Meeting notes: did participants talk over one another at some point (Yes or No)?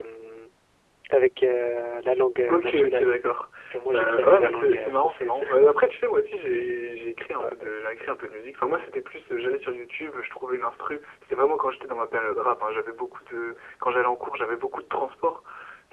Yes